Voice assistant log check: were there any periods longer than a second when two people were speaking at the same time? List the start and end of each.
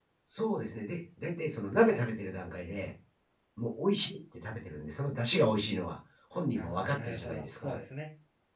6.5-7.8

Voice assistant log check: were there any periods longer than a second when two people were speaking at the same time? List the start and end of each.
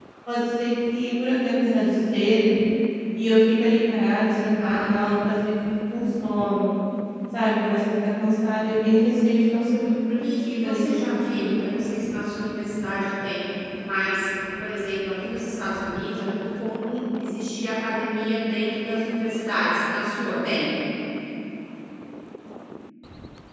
10.2-11.7

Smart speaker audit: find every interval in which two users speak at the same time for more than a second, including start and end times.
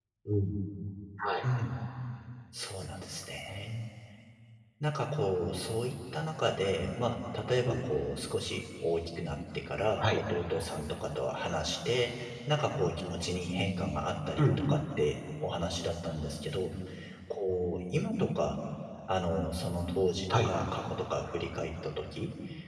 none

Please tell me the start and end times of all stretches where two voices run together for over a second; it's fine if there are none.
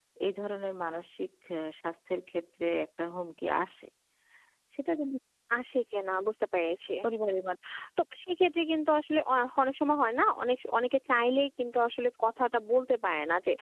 none

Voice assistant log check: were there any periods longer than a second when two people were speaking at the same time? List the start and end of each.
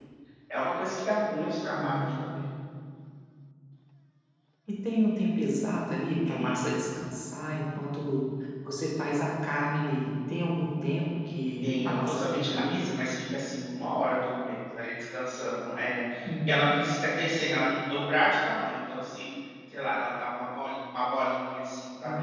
11.6-12.9

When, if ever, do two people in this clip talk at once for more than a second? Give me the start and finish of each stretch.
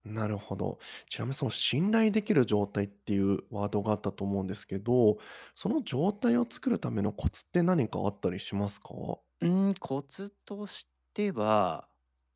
none

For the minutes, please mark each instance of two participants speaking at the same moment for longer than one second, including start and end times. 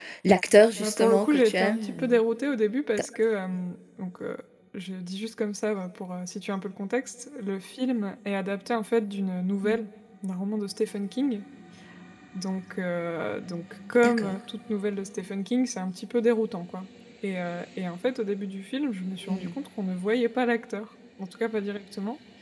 0.8-2.1

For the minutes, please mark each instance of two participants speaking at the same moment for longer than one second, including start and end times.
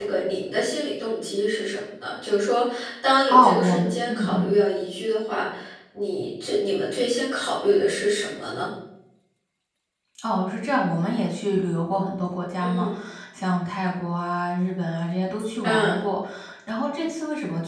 3.3-4.5

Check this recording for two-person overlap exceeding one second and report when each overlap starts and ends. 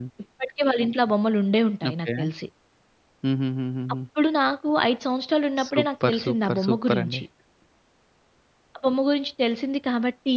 5.7-7.2

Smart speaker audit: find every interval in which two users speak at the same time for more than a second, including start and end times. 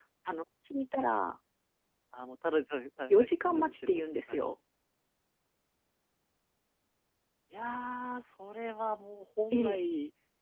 3.1-4.5

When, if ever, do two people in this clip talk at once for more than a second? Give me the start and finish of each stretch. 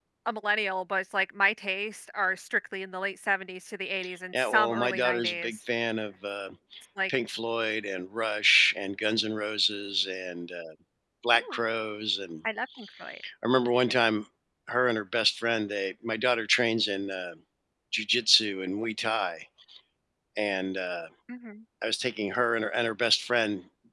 4.3-5.6

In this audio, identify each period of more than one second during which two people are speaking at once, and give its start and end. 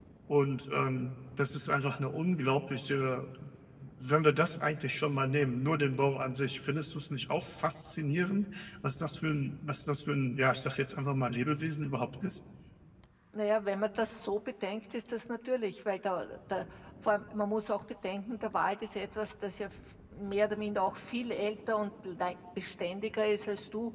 none

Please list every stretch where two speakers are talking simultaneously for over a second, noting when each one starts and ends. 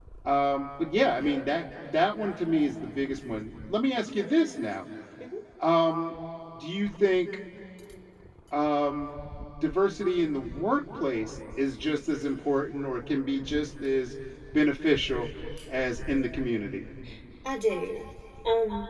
none

